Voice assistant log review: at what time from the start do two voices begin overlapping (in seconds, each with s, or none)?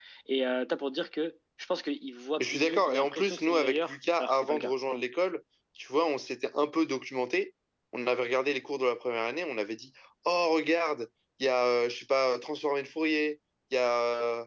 2.4 s